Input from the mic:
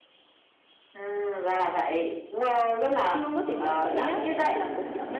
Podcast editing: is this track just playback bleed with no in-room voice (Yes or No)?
No